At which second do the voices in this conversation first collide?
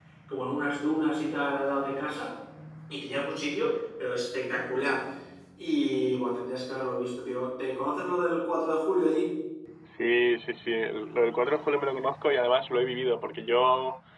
none

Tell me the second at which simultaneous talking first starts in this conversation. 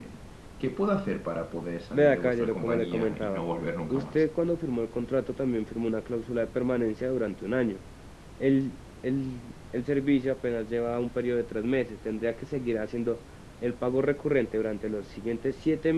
2 s

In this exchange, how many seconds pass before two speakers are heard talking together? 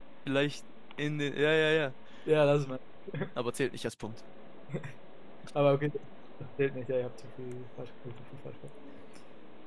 none

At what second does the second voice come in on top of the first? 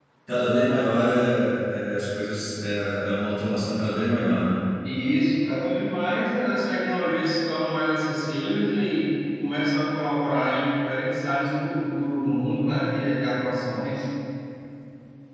none

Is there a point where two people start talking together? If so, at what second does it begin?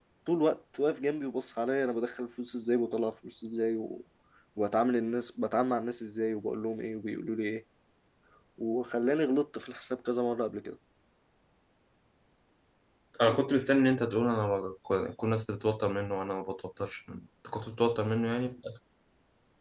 none

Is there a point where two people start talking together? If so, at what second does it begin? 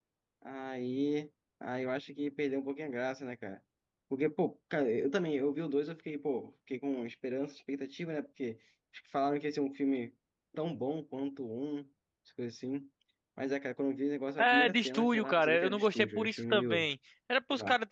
14 s

